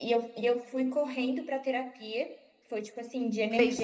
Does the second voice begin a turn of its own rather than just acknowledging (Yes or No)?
Yes